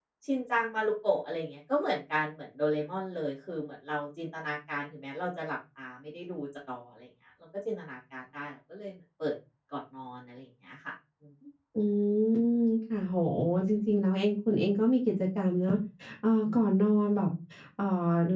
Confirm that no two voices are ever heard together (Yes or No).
Yes